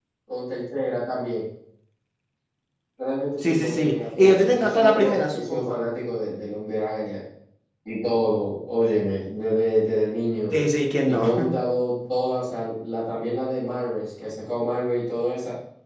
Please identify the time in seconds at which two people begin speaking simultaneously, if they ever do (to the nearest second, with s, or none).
3 s